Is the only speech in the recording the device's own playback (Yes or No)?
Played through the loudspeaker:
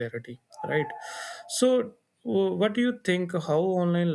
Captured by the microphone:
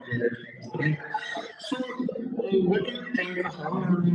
Yes